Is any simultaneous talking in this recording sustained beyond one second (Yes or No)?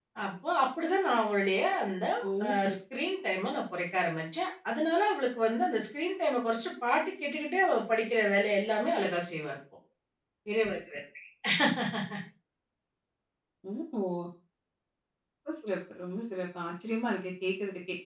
No